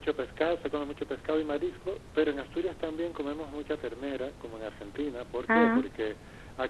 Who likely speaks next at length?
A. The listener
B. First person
B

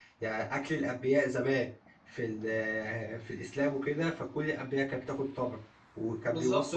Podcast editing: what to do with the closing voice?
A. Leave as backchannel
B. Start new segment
B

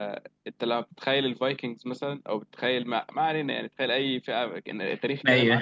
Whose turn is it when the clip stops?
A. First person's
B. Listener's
A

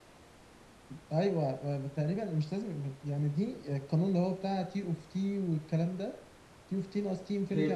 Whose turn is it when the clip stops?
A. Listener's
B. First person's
B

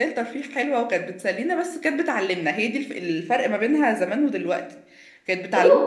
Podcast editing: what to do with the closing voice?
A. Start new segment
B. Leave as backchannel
A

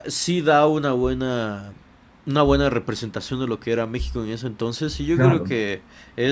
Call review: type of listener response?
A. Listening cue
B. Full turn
A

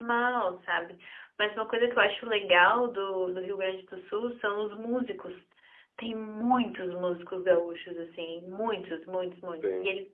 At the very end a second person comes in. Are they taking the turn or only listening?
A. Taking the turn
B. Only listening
B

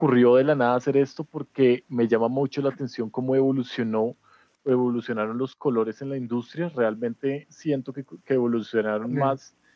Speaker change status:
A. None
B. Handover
A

